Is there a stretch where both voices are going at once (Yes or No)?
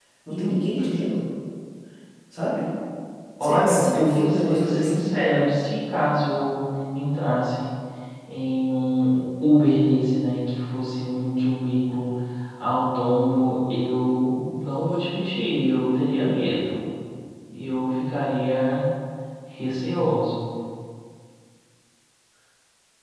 Yes